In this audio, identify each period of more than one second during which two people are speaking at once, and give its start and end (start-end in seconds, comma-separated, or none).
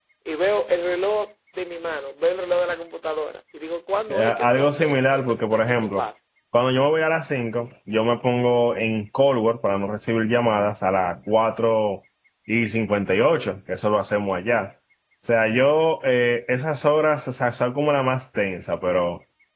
4.1-6.0